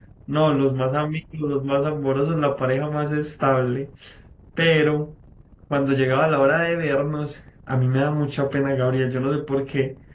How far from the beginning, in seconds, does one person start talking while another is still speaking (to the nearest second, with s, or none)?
none